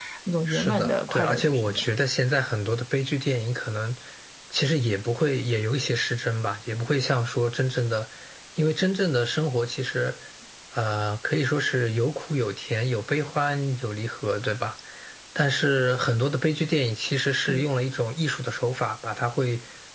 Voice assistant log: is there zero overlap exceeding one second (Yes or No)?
No